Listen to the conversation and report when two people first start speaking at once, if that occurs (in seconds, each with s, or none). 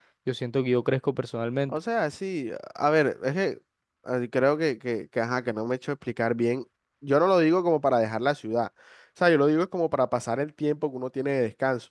none